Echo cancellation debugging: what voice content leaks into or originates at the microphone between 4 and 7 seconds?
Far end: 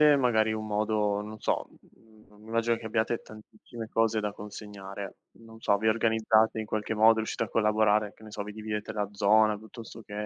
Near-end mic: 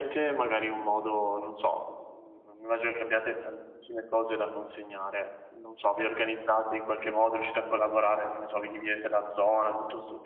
echo only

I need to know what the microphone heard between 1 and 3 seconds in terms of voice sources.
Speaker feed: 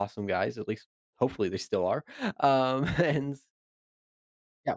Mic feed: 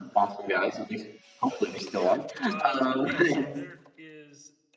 both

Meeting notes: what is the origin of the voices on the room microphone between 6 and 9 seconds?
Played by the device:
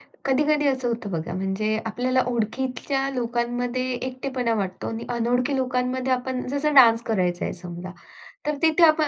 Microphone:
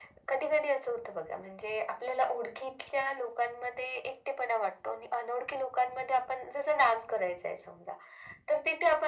echo only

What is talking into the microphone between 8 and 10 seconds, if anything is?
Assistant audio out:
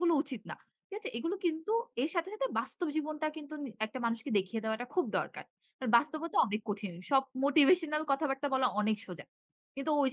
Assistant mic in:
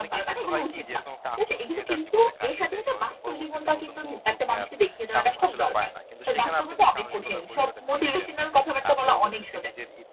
both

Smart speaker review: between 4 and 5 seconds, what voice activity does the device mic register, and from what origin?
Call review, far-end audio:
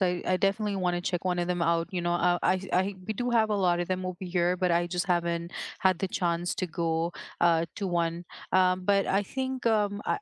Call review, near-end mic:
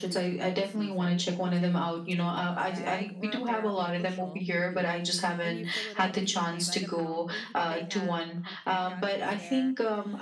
both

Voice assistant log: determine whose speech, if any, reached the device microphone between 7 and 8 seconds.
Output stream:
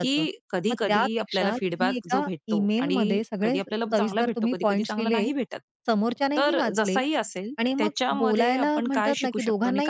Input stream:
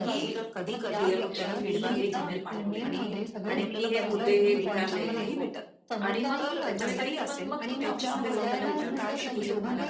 both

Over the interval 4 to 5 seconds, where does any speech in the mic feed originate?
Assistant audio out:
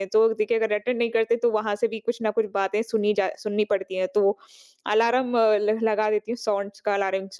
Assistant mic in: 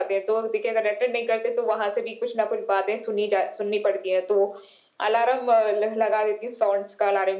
echo only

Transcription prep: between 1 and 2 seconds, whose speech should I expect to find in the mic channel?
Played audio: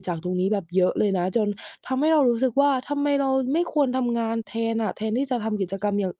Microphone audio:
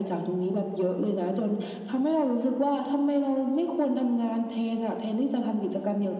echo only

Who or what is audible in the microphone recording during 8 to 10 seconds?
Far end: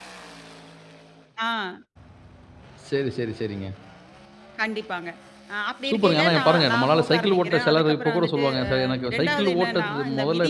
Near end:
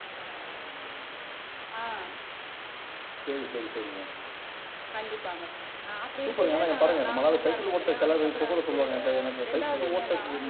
echo only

